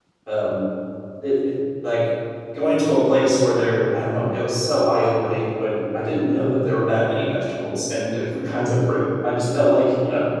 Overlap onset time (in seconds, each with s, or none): none